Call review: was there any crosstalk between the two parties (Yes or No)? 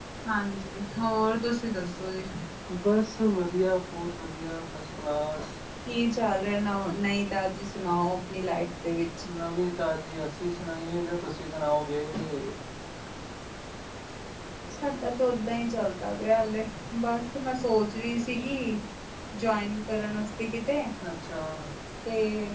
No